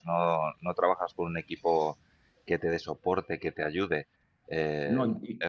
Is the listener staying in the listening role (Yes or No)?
Yes